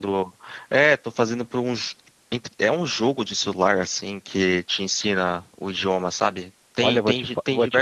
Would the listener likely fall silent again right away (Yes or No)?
No